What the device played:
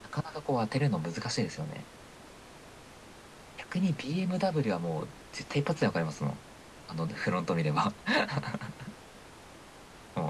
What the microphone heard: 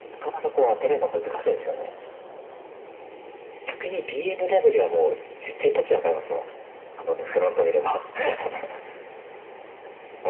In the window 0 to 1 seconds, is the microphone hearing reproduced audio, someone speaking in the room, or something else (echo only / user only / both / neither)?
echo only